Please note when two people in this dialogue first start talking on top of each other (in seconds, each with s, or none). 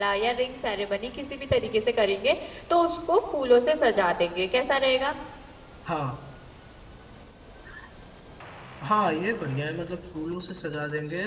none